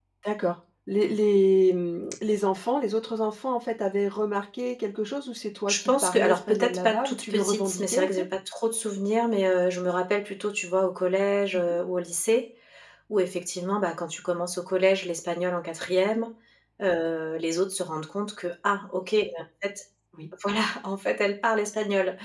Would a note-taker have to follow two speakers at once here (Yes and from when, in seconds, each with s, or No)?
Yes, from 5.7 s